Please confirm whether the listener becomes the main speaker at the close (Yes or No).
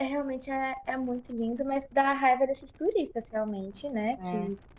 No